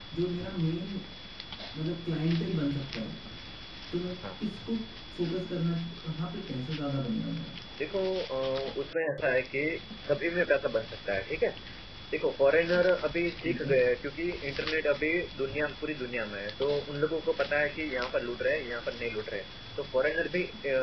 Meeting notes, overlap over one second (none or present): none